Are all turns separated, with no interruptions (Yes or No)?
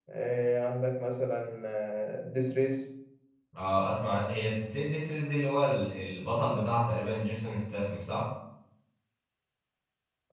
Yes